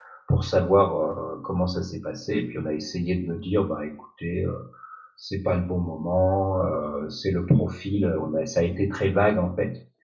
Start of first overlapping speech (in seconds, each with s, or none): none